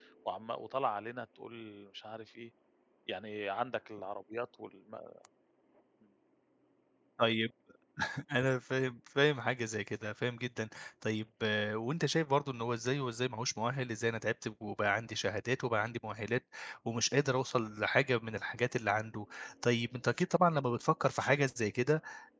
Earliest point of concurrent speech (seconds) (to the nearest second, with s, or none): none